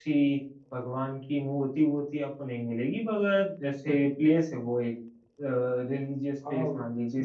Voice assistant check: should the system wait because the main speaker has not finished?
No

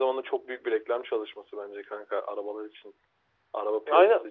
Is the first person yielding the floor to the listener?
Yes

